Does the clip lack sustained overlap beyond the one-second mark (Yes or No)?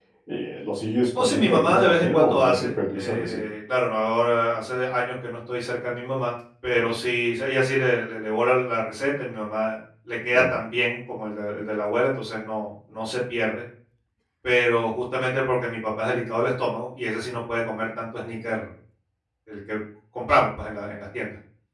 No